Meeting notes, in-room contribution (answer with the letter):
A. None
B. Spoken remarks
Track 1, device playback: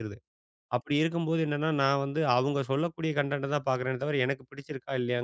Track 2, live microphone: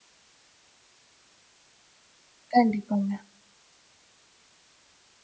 B